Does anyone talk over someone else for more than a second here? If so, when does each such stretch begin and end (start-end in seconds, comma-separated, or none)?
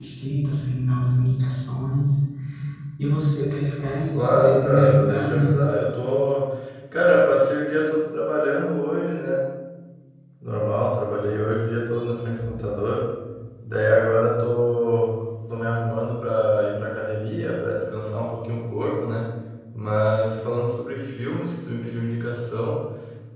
4.1-5.5